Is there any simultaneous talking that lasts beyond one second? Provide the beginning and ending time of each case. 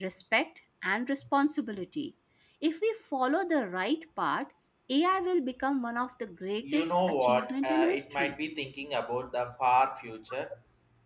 6.6-8.3

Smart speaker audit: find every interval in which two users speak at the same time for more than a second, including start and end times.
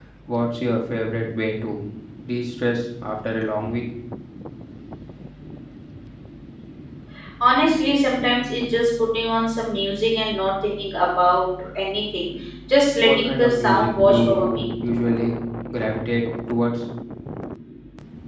13.0-14.6

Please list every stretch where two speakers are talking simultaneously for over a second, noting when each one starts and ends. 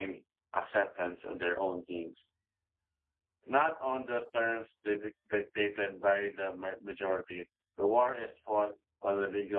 none

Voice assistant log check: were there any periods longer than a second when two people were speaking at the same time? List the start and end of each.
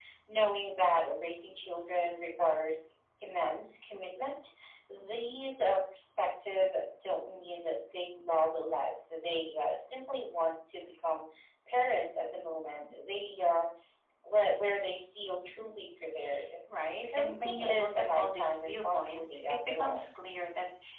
17.0-20.0

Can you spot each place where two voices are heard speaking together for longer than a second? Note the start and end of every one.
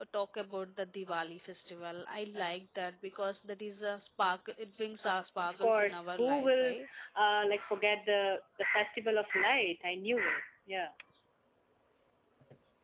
5.5-6.7

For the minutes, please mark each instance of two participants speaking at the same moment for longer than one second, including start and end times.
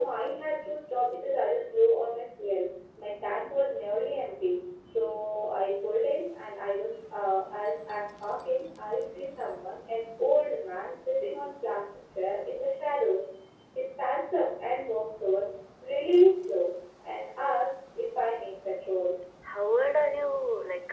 none

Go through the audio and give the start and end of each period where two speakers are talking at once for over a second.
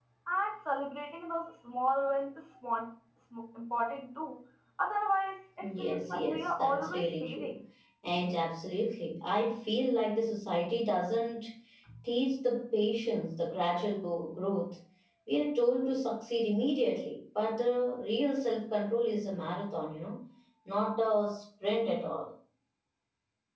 5.6-7.5

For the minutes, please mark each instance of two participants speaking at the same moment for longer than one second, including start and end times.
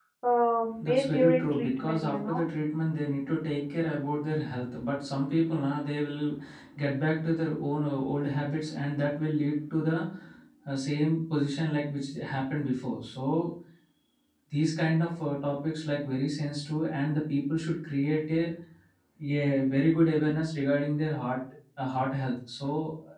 0.8-2.5

